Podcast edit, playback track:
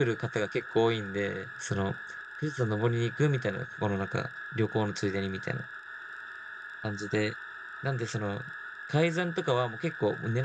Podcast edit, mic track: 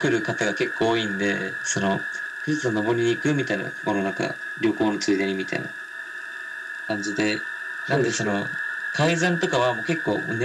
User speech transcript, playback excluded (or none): そうです。